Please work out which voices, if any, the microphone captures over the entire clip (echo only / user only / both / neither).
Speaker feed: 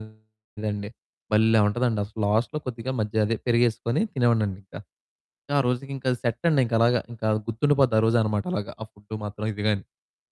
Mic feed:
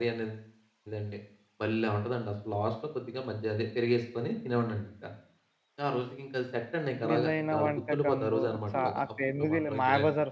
both